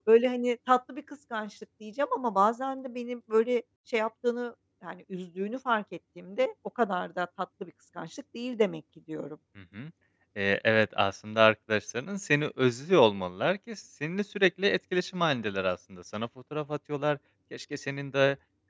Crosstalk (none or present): none